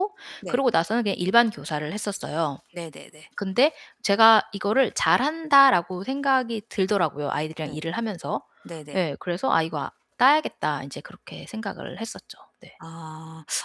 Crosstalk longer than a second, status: none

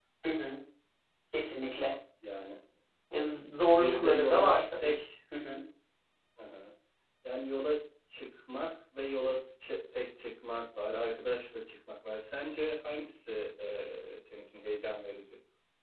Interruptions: present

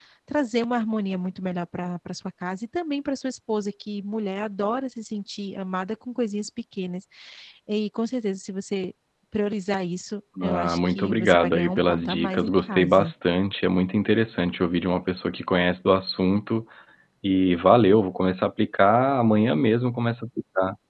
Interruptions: present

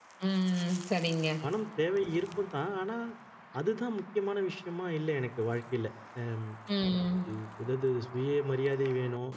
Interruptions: none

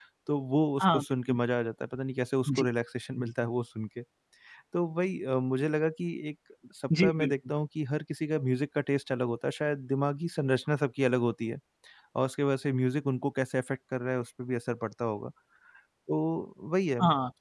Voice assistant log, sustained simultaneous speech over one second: none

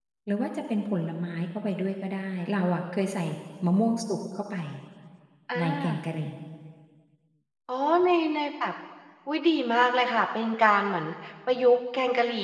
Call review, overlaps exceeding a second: none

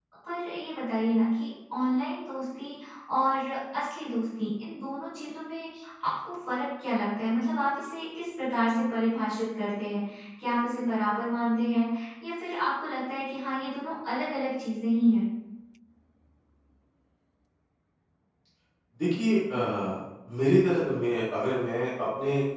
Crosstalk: none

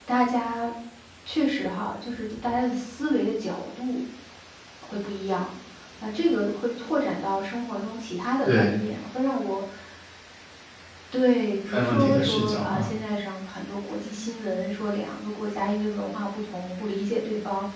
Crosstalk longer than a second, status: present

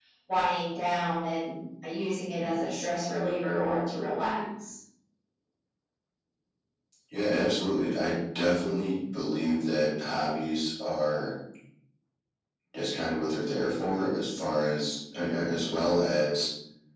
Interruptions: none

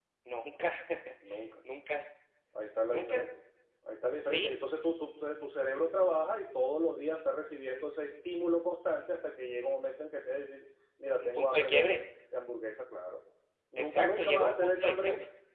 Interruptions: present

